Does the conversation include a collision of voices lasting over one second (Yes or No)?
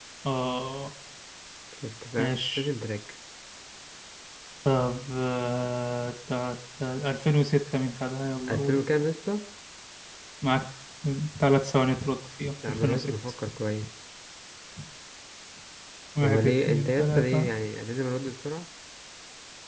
Yes